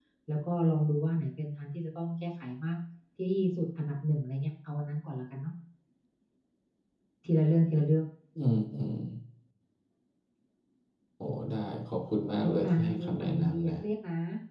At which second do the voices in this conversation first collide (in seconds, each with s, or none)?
12.4 s